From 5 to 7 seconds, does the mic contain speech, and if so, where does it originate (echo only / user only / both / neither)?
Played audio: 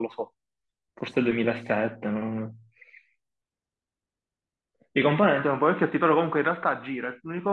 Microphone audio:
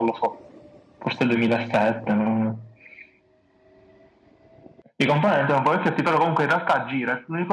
echo only